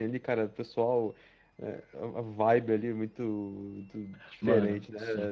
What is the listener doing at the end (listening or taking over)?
taking over